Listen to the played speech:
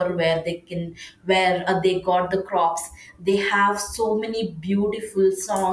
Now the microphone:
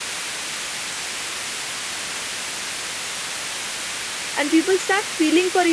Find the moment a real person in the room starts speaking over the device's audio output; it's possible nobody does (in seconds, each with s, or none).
4.4 s